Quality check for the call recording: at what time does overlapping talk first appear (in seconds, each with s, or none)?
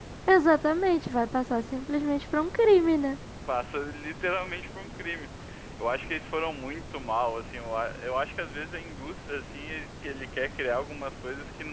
none